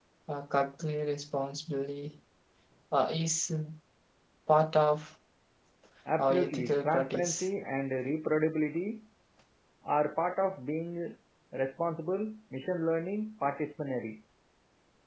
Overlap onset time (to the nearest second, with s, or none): 6 s